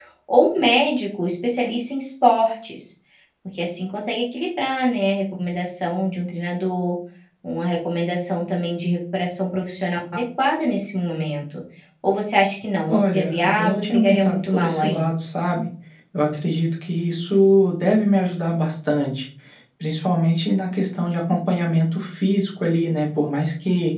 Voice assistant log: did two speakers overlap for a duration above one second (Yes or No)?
Yes